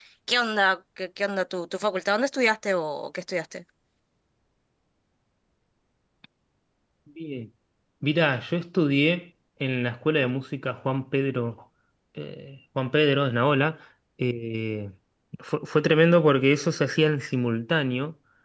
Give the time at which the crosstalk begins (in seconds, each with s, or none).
none